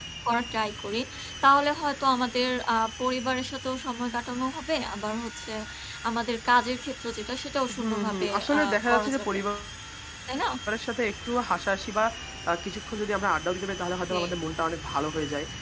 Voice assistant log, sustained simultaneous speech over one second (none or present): present